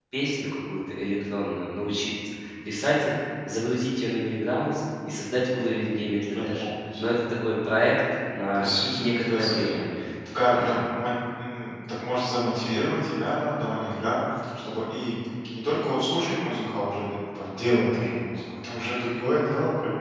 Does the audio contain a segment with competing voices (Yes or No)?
Yes